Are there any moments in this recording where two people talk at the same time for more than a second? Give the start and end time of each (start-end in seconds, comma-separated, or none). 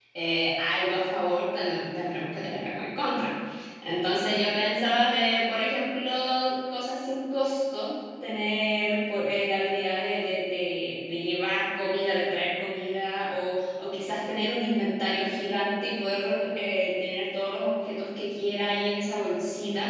none